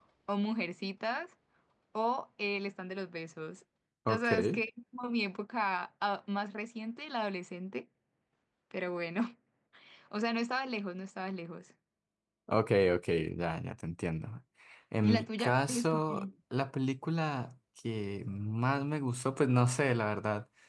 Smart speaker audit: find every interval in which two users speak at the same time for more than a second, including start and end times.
15.0-16.2

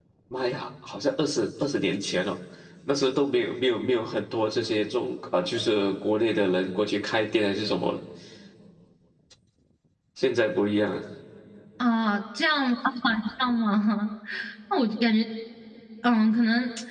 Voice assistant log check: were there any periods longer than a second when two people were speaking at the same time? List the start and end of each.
none

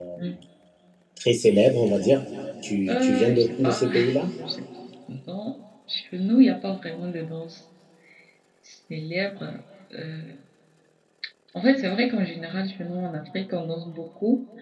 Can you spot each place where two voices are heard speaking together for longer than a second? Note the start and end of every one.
2.9-4.3

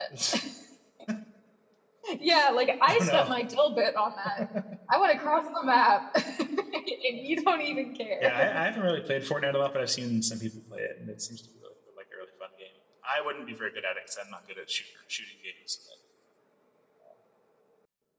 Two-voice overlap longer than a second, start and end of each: none

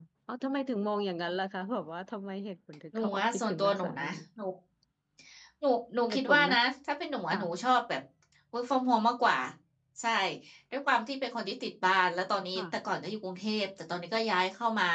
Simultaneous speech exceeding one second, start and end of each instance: 2.9-4.2

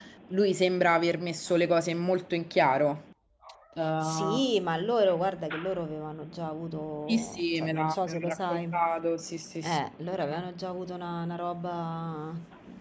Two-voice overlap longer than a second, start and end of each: 7.1-8.6

